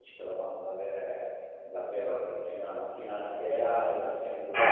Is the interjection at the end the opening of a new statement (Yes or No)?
Yes